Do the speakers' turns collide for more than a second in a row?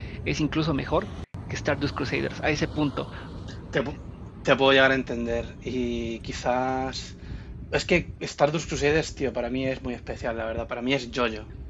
No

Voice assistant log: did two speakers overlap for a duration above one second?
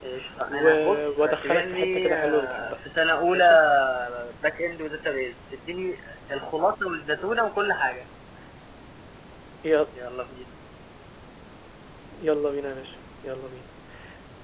Yes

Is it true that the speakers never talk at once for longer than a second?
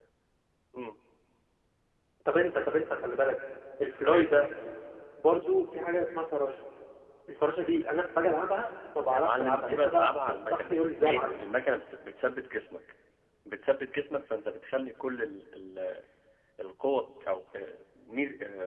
No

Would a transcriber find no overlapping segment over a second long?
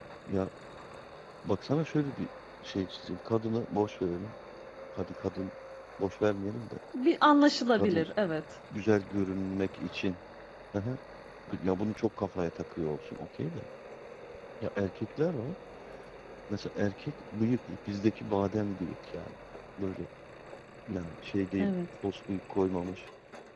Yes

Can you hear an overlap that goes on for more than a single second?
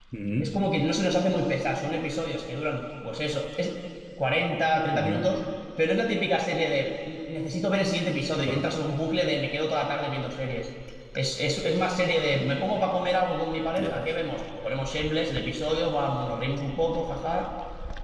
No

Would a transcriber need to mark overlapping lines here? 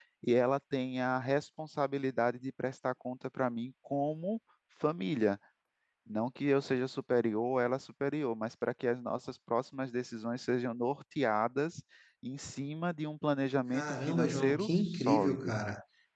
Yes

